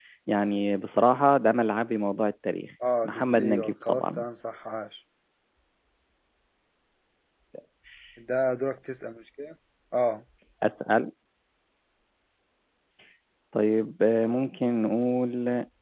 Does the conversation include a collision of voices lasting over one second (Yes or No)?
Yes